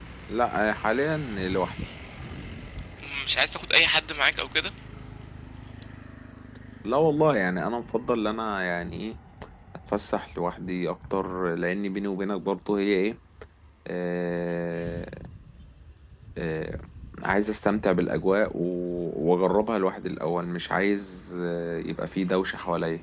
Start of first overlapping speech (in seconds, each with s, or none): none